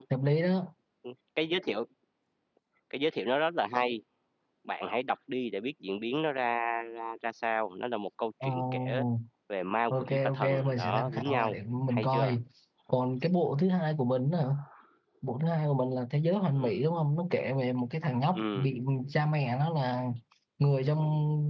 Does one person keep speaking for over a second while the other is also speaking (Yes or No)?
Yes